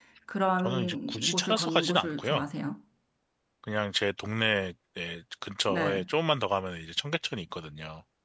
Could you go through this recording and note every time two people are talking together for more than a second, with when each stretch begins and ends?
0.6-2.5

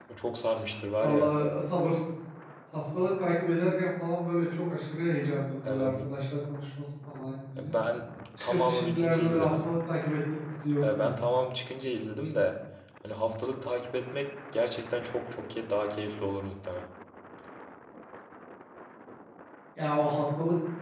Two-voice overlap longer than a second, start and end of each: 8.4-9.7

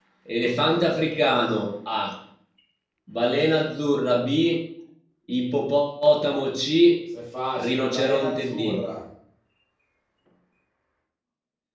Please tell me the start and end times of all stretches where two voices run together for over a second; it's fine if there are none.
7.6-8.8

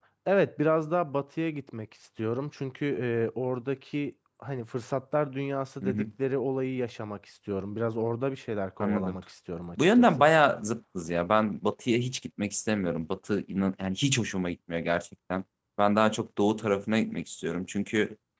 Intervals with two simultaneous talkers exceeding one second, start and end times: none

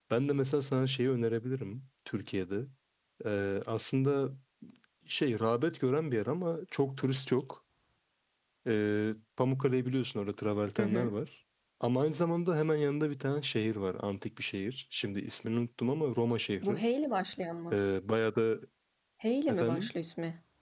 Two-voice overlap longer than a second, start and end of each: none

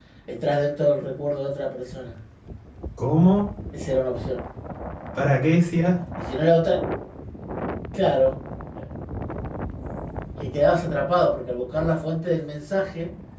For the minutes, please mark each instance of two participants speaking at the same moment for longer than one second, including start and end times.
none

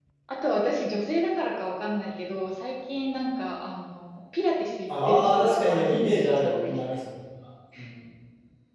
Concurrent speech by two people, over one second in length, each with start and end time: 4.9-6.8

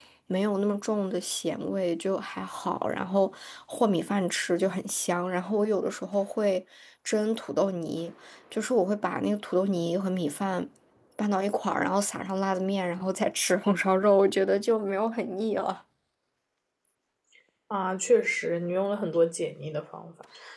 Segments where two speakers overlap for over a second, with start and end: none

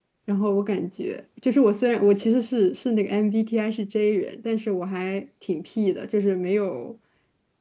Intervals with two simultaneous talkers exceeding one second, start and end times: none

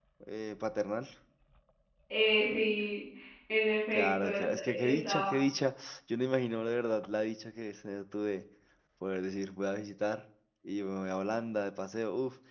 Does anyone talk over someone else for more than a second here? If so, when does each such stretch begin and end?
3.9-5.4

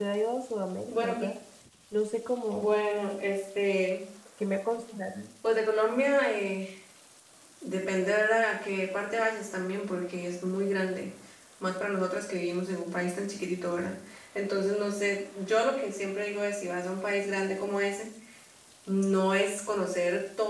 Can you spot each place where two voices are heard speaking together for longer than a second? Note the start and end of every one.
none

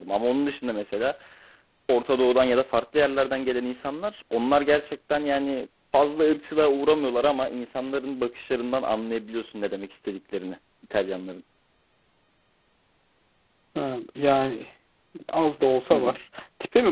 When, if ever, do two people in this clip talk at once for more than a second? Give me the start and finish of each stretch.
none

